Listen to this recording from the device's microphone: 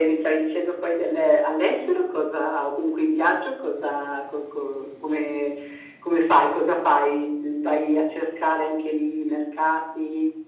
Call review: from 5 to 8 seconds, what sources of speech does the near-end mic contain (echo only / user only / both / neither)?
echo only